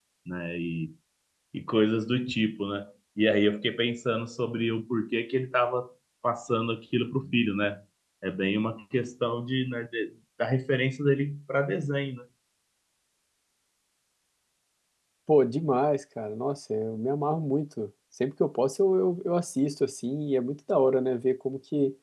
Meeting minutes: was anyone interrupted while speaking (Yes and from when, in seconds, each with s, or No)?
No